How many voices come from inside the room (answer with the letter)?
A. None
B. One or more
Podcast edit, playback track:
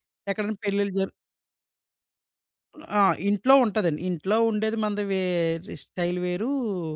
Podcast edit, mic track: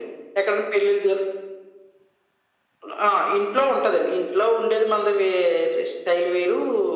A